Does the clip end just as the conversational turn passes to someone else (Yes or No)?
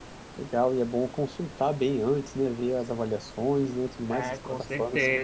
Yes